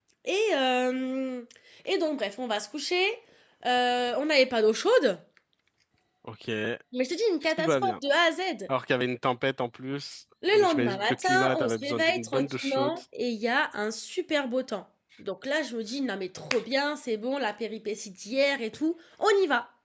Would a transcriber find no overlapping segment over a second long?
No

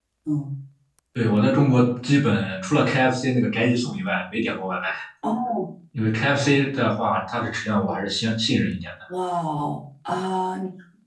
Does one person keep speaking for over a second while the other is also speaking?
No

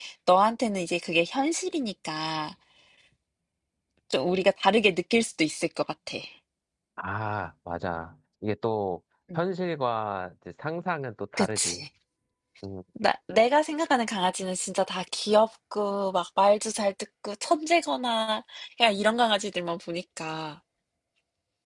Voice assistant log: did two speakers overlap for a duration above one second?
No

